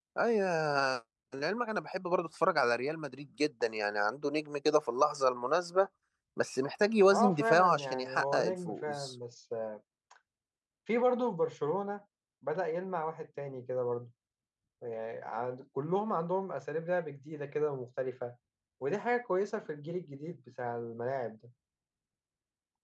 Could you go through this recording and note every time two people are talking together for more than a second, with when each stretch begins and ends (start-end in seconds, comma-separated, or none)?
7.1-9.1